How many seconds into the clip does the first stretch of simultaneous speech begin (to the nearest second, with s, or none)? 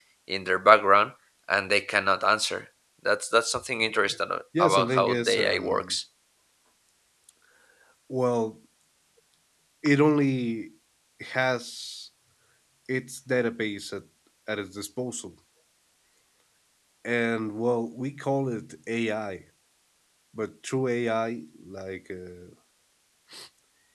5 s